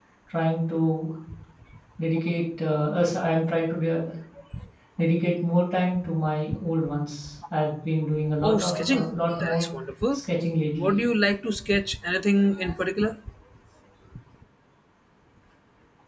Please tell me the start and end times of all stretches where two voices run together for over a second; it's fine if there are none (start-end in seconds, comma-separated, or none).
8.4-9.6